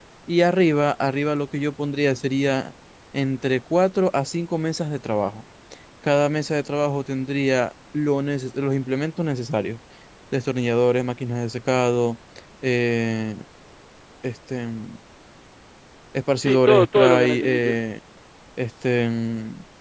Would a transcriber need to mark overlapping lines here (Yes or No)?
Yes